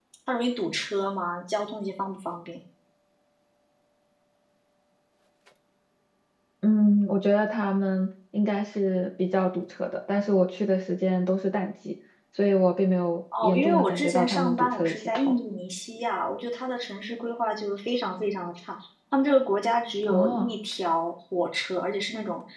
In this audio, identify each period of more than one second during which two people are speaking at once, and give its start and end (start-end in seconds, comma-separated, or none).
13.4-15.3